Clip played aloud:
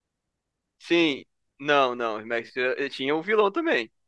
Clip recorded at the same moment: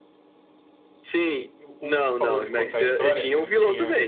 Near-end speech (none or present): present